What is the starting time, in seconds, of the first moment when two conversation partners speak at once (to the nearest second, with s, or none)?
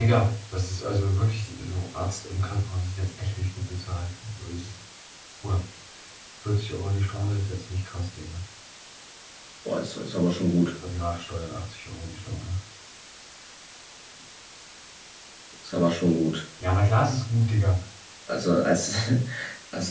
none